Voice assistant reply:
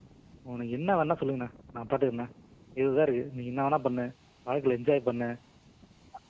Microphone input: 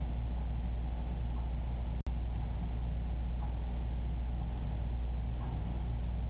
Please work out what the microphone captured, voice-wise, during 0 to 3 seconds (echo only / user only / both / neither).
neither